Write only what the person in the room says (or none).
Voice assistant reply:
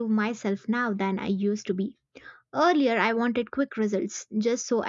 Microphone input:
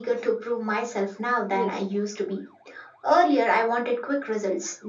Yes,